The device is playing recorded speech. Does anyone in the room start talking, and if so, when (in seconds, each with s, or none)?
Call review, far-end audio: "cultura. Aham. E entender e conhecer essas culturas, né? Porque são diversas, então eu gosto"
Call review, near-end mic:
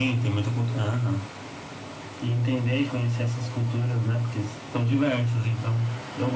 none